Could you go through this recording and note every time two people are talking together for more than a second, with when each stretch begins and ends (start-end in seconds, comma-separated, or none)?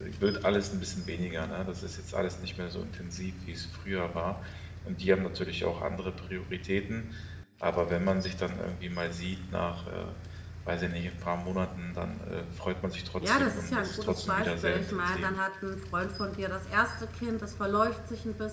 13.2-15.3